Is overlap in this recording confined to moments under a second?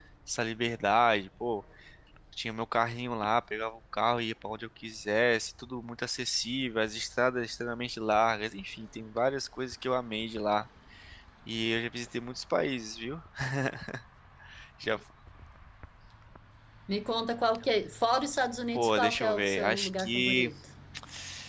No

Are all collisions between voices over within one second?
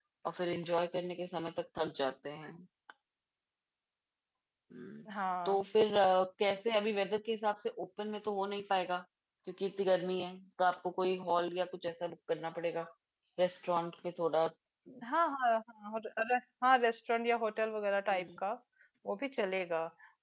Yes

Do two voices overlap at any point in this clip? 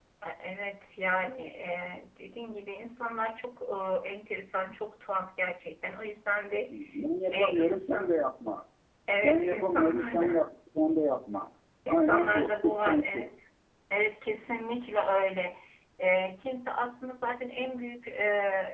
Yes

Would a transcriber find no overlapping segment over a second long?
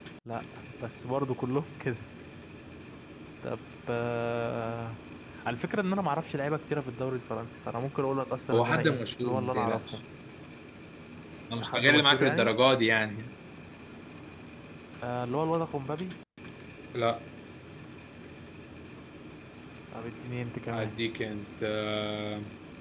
No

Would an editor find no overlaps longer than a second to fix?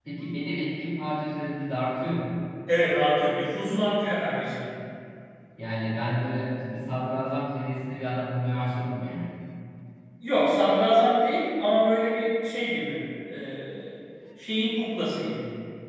Yes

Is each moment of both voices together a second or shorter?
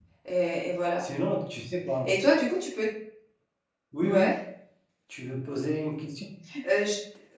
Yes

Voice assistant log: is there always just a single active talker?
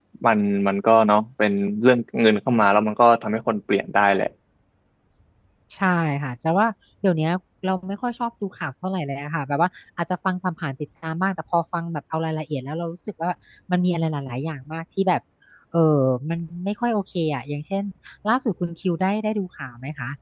Yes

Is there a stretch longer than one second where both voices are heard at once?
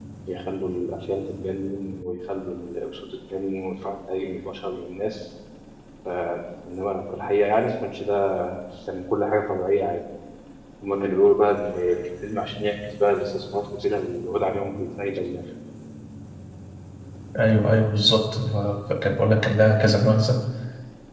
No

